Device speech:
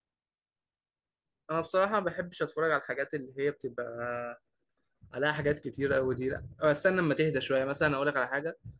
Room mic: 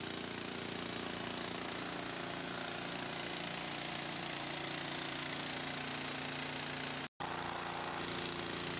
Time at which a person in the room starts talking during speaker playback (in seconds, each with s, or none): none